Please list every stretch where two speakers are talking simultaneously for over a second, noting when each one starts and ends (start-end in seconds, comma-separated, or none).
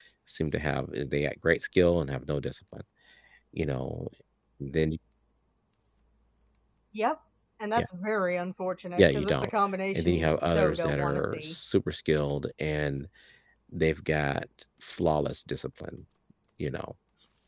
9.9-11.6